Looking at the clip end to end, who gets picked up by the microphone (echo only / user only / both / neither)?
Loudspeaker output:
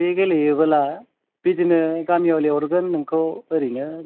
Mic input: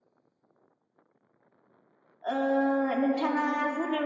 user only